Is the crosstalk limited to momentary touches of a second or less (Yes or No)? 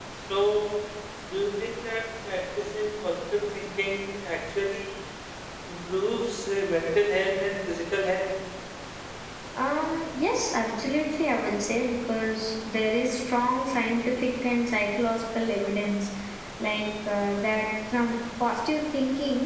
Yes